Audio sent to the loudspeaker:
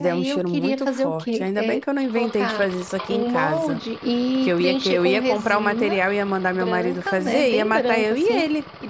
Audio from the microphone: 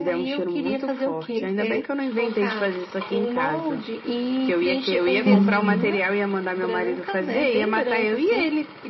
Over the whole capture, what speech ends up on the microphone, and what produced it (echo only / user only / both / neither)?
both